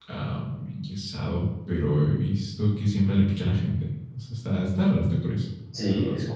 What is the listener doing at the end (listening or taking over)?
taking over